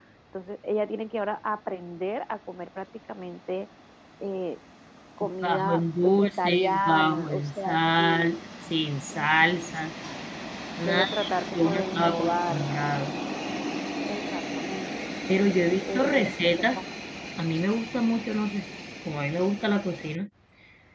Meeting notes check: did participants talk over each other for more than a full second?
Yes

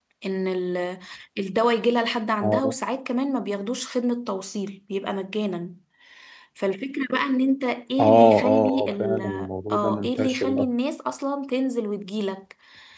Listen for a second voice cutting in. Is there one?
Yes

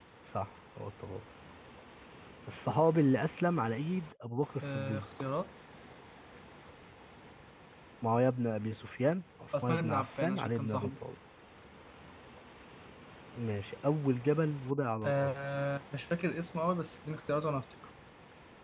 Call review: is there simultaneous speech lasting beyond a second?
Yes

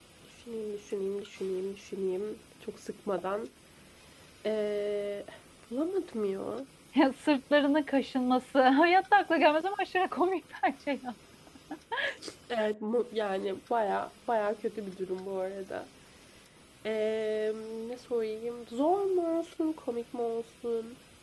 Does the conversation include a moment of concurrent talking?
No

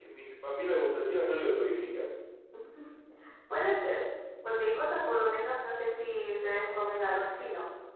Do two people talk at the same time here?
No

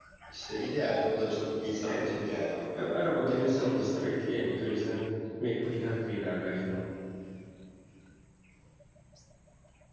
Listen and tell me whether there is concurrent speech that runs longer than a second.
Yes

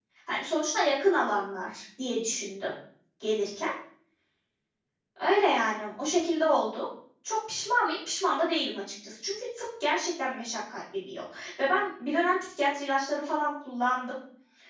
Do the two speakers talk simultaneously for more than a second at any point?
No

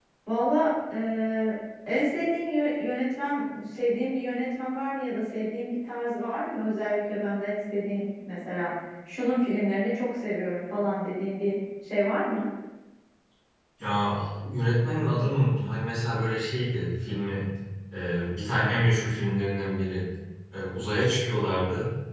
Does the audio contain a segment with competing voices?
No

